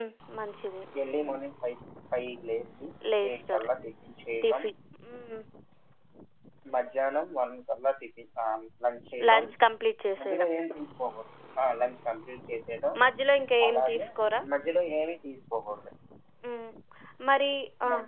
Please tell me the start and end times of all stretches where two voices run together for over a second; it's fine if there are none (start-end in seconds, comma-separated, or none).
none